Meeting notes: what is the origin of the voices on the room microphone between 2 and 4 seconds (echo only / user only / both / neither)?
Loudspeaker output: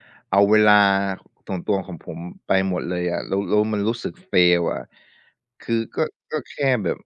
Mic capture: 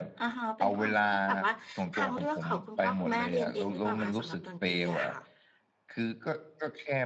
both